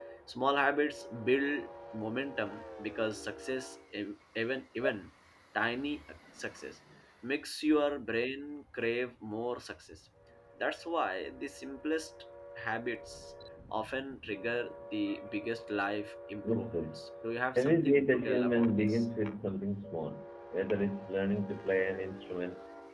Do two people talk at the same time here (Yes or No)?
Yes